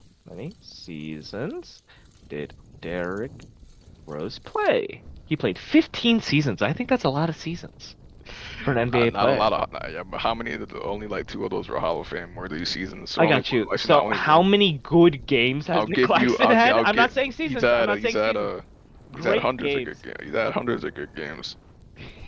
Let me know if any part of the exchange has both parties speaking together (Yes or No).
Yes